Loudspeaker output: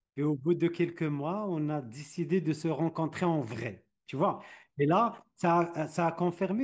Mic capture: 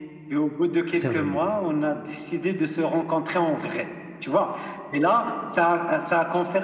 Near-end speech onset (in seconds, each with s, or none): 0.9 s